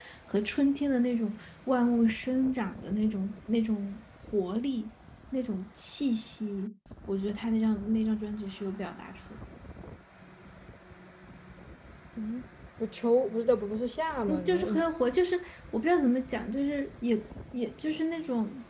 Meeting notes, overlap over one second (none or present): none